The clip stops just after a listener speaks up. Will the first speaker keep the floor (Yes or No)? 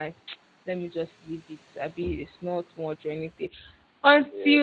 Yes